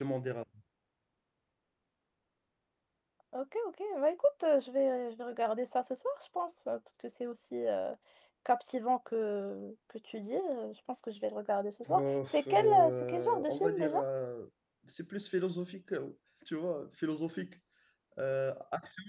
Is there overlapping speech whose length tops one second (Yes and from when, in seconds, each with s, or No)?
Yes, from 11.9 s